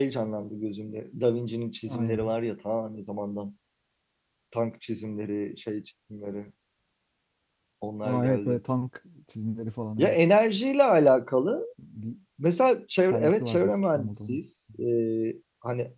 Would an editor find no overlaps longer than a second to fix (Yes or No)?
No